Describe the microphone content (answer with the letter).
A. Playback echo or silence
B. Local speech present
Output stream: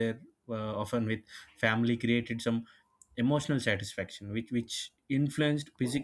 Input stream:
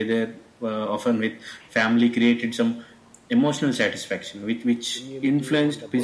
B